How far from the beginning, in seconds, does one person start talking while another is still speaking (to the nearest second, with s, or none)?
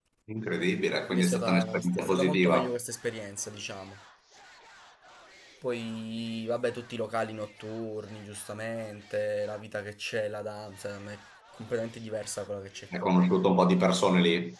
1 s